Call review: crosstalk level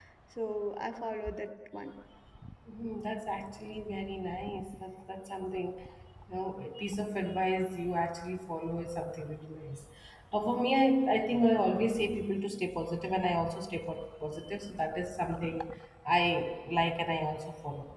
none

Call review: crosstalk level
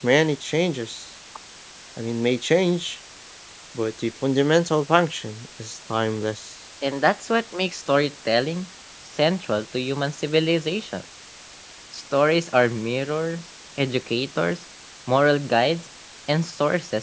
none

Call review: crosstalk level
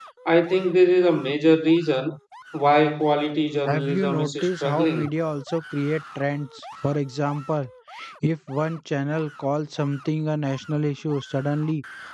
present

